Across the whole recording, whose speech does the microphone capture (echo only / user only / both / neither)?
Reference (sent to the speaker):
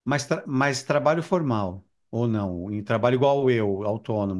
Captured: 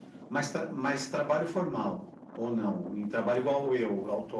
echo only